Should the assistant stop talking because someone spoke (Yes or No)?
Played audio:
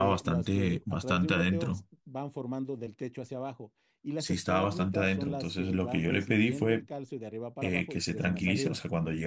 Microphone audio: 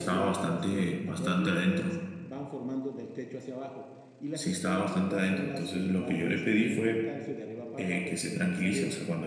No